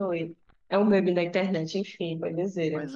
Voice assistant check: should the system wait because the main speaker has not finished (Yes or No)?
No